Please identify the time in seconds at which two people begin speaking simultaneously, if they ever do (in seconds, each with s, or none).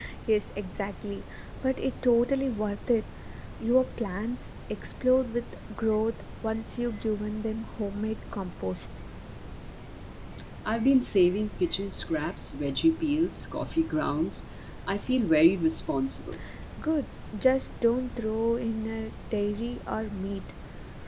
none